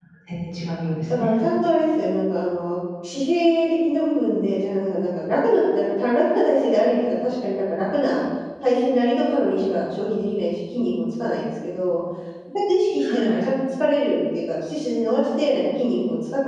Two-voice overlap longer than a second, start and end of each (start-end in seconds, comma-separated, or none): none